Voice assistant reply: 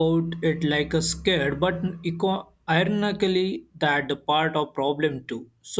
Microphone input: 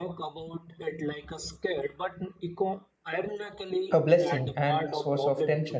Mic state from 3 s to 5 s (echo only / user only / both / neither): both